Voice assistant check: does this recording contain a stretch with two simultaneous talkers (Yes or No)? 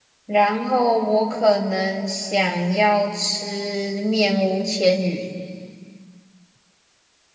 No